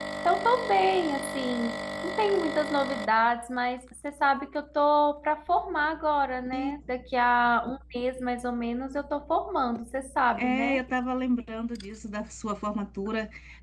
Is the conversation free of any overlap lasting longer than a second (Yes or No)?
Yes